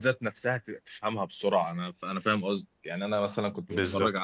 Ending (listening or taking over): listening